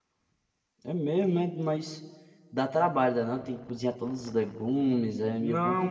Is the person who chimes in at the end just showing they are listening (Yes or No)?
No